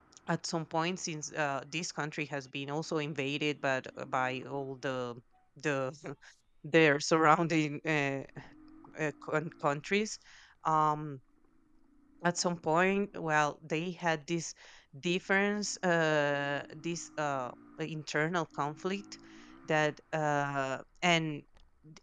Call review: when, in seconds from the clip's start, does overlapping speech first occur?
none

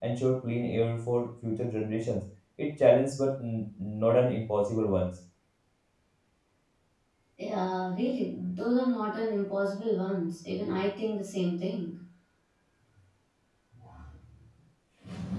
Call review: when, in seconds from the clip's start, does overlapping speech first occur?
none

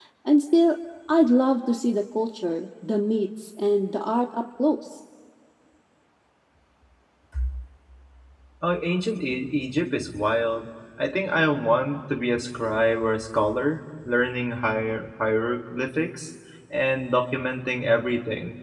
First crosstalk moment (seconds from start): none

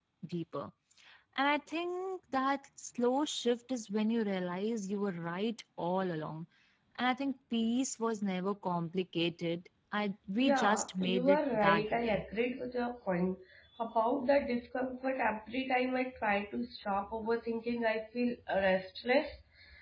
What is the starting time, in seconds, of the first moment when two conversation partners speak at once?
10.4 s

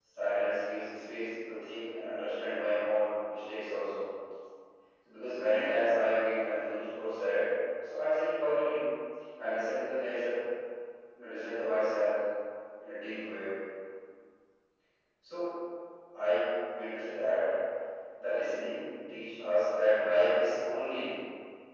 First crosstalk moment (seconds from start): none

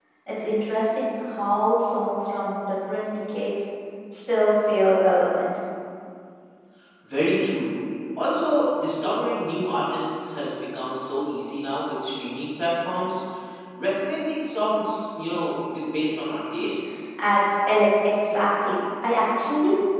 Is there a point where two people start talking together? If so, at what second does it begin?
none

